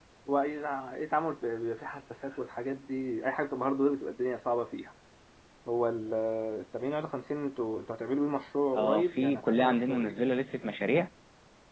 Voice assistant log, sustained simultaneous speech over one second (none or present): present